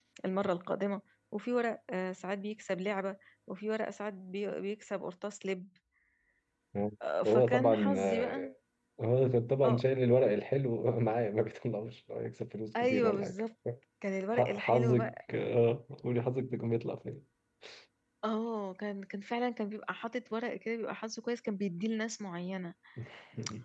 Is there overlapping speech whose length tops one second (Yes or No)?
Yes